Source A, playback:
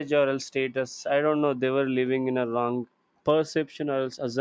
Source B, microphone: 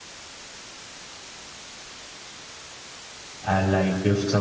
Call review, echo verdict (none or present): none